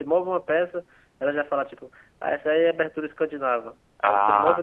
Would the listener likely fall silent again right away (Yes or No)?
Yes